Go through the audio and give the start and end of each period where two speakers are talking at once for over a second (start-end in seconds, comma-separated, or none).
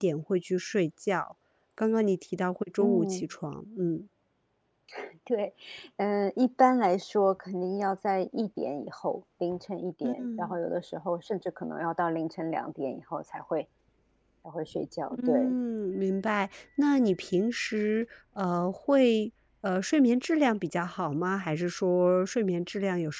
none